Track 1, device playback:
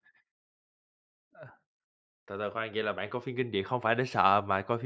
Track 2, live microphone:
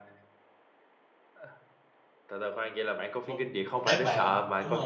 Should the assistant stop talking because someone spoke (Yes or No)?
Yes